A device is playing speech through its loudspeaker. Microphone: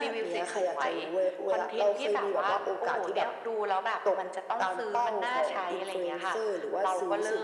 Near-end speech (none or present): none